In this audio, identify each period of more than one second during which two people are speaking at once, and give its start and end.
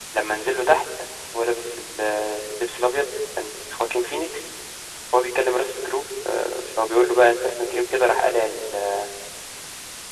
none

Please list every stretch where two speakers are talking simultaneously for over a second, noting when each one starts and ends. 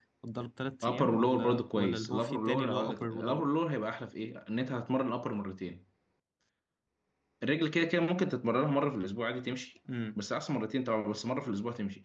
0.8-3.5

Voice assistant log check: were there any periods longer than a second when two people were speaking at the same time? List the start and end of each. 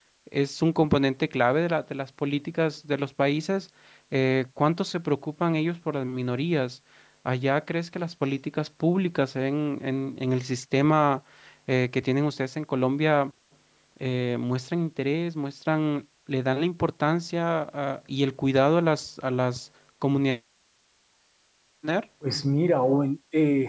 none

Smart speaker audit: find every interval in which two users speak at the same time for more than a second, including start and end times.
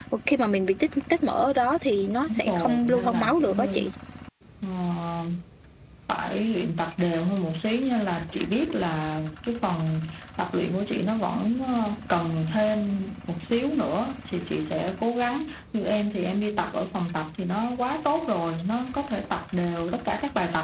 2.3-3.8

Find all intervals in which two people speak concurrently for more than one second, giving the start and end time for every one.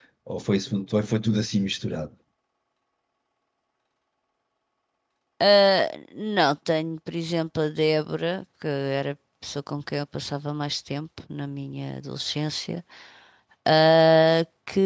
none

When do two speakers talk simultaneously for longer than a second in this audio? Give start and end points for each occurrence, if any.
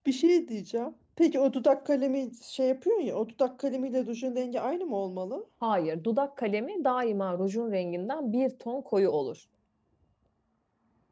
none

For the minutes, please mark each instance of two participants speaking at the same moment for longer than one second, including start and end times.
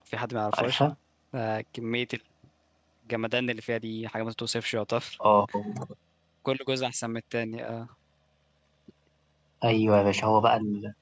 none

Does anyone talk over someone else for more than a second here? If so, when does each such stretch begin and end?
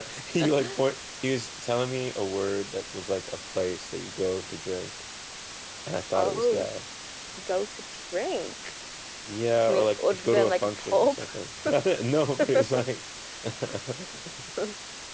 9.7-11.2

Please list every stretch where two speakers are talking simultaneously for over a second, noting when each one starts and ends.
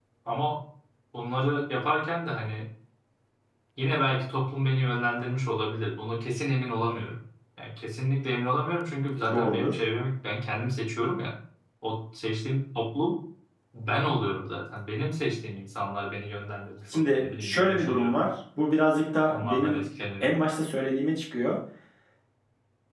16.9-18.2

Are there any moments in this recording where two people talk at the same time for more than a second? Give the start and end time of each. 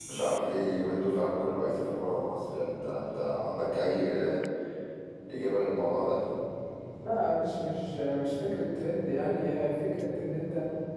none

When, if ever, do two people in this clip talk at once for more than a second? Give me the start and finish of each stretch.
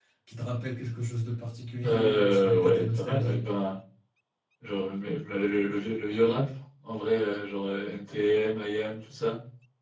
1.8-3.5

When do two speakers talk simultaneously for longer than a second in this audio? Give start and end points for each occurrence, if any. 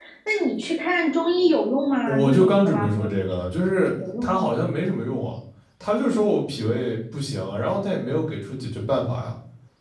2.1-3.5

